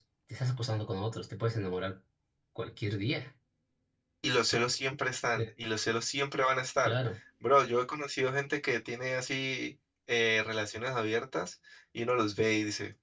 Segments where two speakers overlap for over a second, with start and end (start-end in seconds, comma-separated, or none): none